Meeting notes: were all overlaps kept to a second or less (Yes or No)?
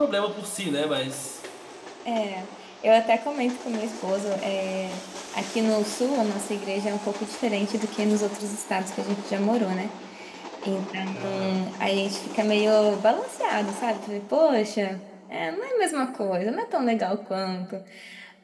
Yes